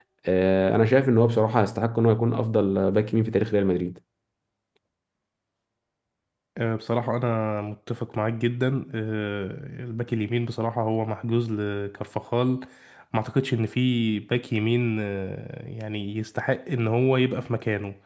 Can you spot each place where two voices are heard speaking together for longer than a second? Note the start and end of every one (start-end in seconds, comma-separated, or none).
none